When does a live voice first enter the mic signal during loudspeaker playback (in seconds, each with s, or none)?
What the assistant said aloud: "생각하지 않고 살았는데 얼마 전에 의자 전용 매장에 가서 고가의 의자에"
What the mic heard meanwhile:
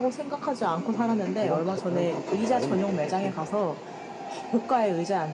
0.9 s